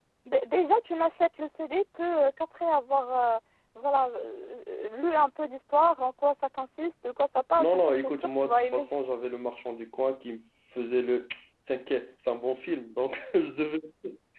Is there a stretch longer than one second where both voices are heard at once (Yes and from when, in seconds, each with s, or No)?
Yes, from 7.6 s